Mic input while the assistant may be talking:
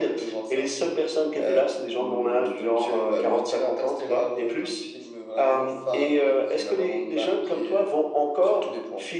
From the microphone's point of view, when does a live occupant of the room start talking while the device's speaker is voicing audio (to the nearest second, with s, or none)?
none